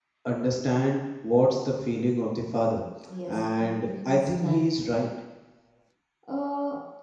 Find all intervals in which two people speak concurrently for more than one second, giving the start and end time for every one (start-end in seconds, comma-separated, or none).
3.3-4.6